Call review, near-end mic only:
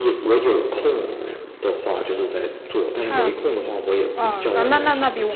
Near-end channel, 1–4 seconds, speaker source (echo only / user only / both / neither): both